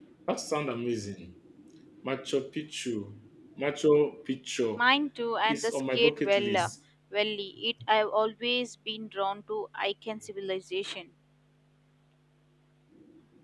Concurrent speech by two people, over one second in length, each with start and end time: 5.4-6.7

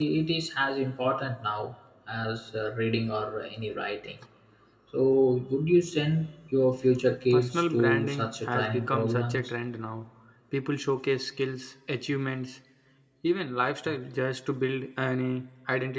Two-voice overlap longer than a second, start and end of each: 7.3-9.5

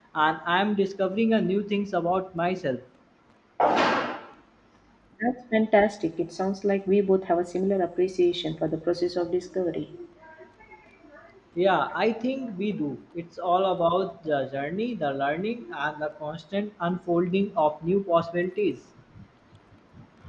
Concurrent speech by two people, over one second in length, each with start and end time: none

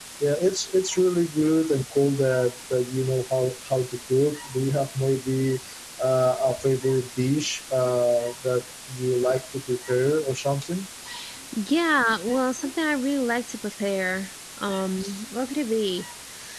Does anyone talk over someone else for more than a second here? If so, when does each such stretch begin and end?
none

